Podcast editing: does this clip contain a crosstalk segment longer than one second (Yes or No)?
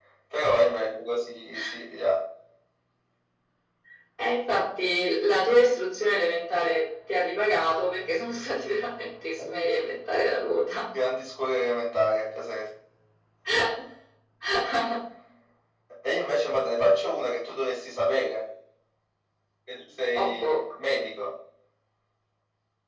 No